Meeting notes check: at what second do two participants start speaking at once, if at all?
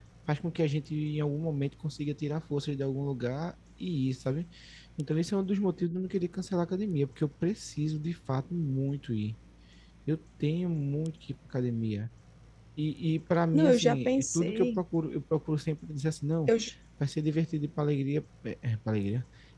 13.5 s

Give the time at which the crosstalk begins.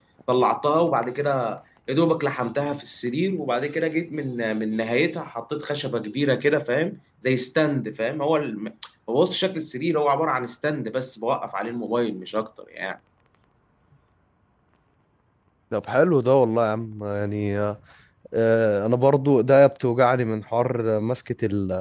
none

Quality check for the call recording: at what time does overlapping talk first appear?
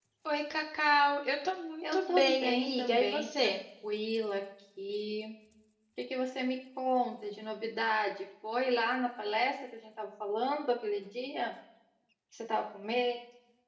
1.8 s

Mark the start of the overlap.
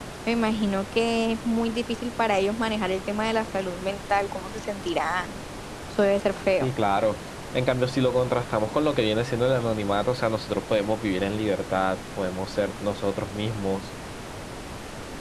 none

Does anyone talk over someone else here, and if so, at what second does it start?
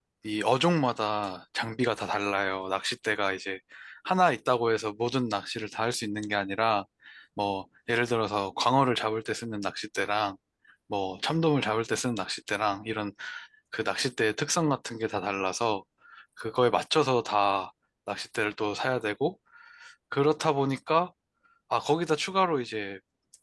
none

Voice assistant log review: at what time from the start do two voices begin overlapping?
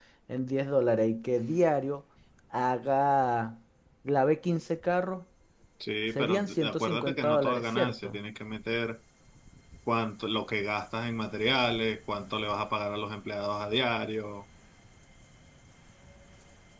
6.2 s

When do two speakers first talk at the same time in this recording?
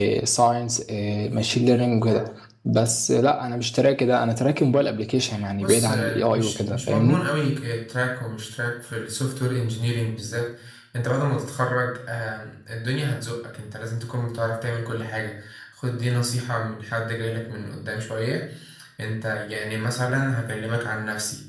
5.6 s

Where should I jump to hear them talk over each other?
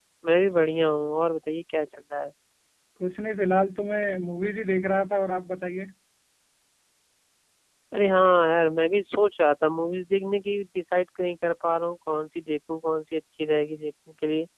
none

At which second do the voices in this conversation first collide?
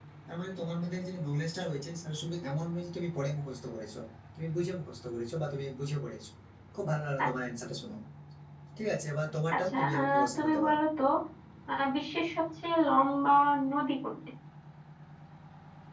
9.5 s

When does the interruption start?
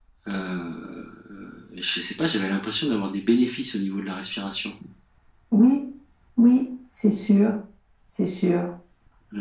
none

